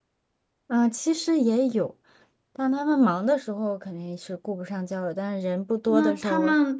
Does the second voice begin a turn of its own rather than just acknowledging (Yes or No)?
Yes